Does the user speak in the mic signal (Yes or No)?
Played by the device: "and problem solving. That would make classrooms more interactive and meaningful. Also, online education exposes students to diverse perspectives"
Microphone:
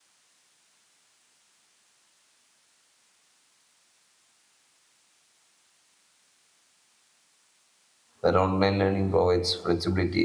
Yes